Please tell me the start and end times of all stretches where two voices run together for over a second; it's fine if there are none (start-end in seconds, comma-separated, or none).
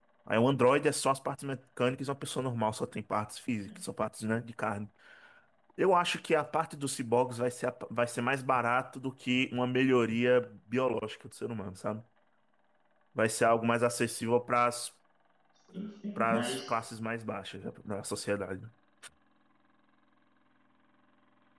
none